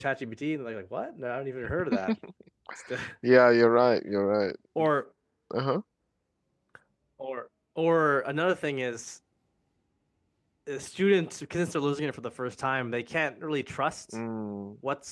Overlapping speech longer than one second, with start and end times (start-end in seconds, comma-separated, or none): none